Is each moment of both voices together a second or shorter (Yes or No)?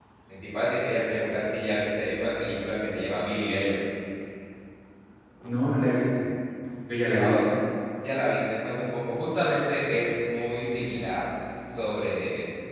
Yes